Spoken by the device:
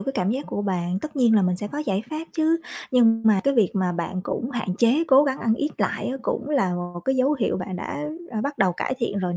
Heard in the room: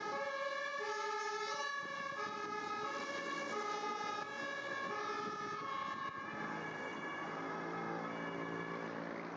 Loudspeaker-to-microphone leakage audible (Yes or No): No